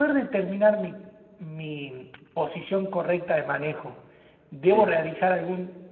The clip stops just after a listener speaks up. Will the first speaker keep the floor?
Yes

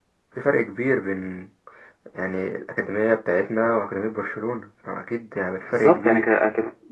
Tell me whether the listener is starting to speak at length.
Yes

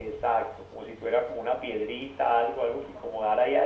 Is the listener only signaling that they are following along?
Yes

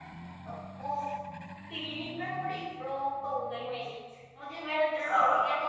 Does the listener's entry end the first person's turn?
No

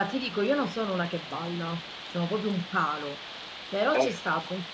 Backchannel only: Yes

